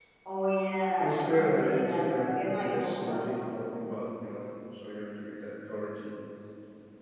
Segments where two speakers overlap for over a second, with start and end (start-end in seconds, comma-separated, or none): 0.9-3.3